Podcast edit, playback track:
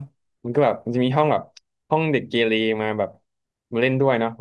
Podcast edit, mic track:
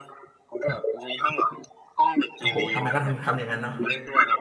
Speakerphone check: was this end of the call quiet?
No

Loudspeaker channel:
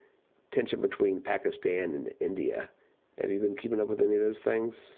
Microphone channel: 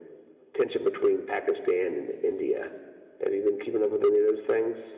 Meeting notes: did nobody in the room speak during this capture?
Yes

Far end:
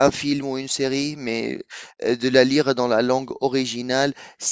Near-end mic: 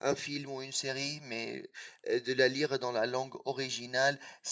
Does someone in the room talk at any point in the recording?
No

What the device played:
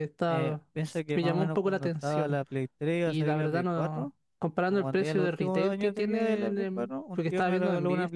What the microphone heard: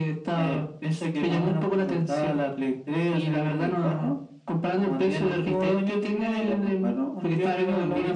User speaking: No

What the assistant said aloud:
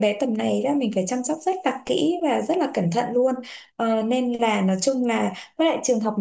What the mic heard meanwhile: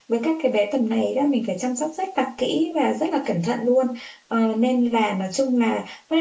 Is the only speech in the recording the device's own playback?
Yes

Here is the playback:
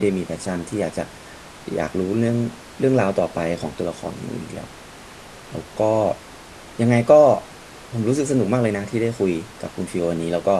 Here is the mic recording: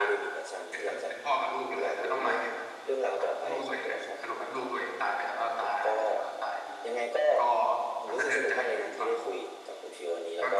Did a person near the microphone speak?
Yes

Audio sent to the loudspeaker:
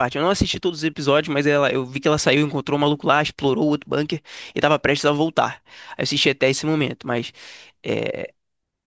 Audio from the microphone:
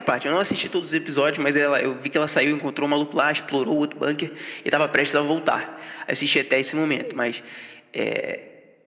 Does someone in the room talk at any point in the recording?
Yes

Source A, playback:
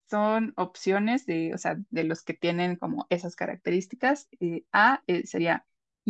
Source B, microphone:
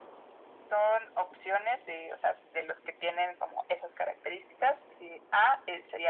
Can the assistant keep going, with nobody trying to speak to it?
Yes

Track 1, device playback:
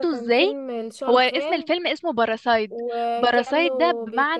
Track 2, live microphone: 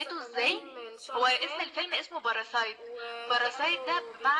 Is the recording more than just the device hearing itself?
Yes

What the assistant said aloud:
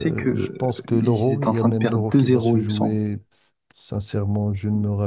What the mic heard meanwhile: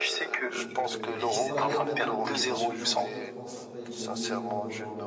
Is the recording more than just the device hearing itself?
Yes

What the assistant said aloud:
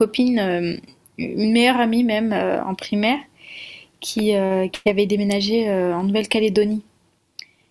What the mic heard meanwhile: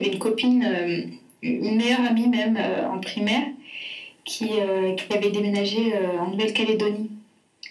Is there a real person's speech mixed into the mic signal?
No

